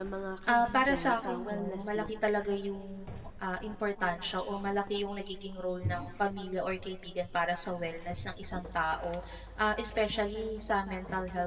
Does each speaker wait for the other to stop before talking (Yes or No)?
No